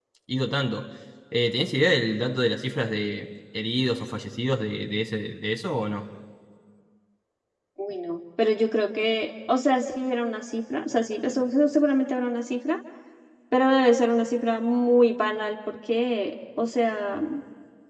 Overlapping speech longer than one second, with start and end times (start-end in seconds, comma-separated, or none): none